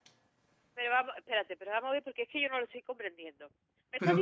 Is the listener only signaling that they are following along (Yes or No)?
Yes